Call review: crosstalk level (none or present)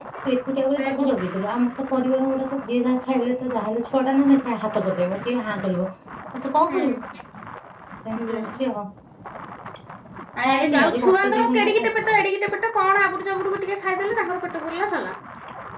present